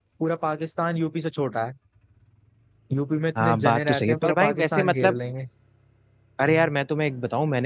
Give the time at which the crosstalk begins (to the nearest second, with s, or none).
3 s